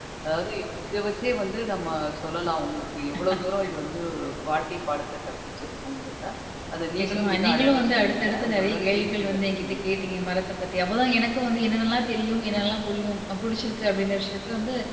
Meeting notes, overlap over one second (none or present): present